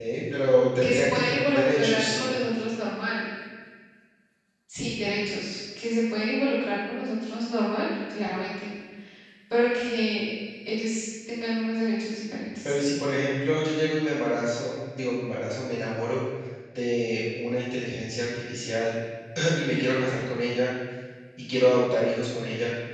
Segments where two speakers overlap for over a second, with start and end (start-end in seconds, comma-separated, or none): 0.8-2.3